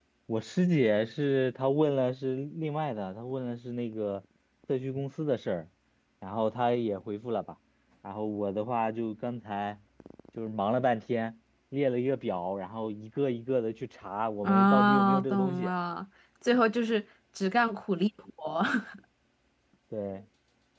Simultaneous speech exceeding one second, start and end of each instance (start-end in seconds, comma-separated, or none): 14.4-15.7